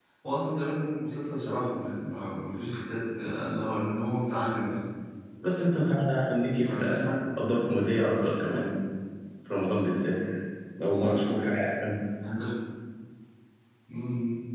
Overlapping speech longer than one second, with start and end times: none

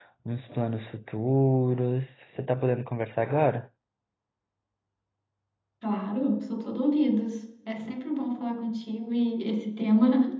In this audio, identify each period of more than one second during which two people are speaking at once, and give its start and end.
none

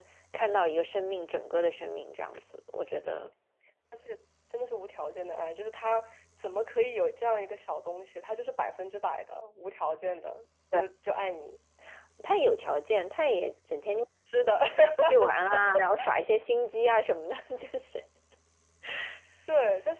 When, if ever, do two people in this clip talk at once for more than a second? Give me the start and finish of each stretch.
none

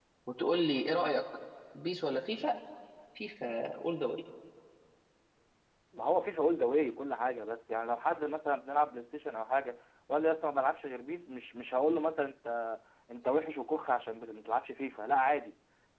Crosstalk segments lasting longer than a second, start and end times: none

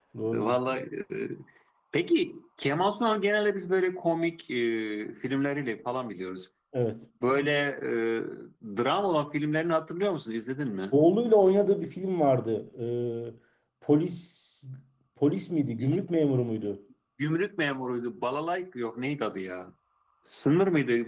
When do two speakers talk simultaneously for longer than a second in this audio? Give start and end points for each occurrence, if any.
none

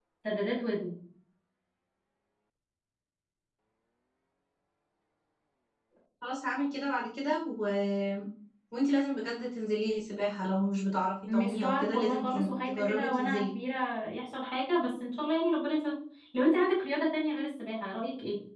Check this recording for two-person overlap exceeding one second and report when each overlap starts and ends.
11.3-13.4

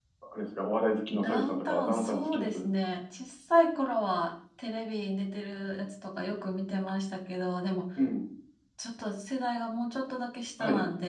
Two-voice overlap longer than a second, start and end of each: 1.1-2.5

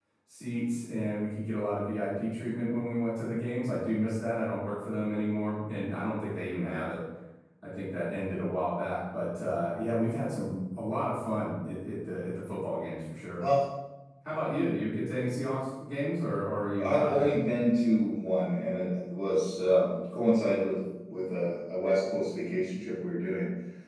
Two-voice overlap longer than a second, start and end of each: none

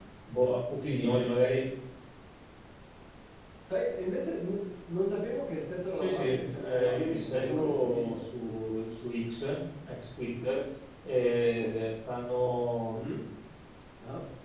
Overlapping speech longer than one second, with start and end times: 5.9-8.2

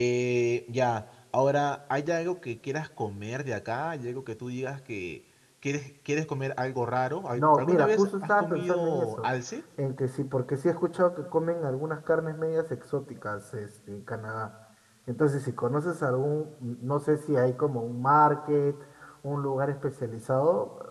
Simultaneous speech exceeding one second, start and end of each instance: 7.4-9.3

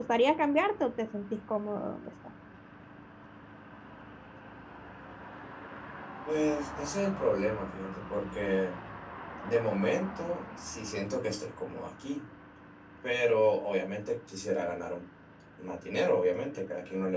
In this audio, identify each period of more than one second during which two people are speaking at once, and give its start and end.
none

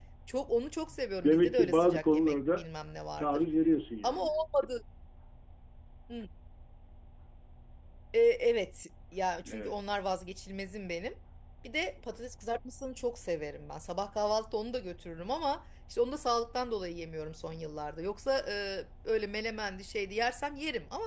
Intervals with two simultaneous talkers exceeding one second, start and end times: 1.2-2.6

